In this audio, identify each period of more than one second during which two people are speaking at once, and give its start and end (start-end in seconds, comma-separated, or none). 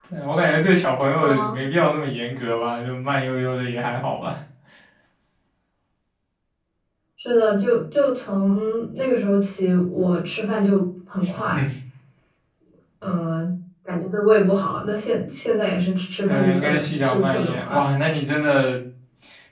16.3-17.8